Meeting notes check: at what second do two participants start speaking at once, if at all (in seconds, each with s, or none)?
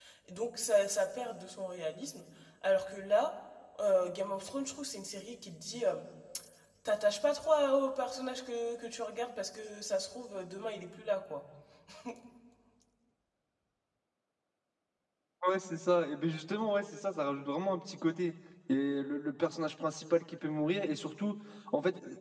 none